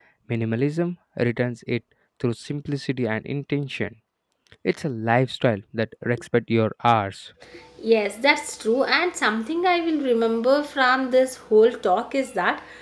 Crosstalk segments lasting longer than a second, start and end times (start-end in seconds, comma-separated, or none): none